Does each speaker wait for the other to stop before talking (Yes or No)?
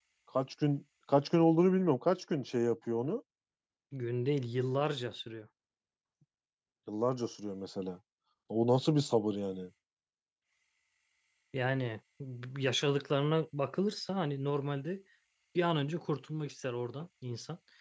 Yes